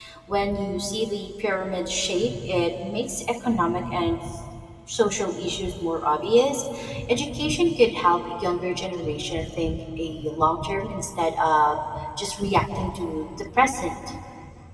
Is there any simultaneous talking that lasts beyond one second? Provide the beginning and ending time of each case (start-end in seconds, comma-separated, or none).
none